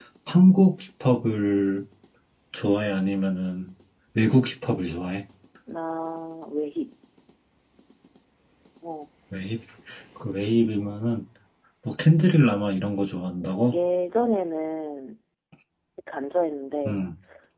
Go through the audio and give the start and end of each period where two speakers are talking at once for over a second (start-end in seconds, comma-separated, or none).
none